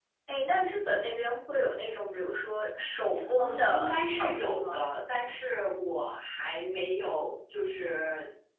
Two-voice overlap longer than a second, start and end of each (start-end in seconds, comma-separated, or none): 3.4-4.9